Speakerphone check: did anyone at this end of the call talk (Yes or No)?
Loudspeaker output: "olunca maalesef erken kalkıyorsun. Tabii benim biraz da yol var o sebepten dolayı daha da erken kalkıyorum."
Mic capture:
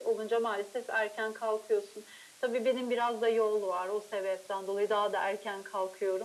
No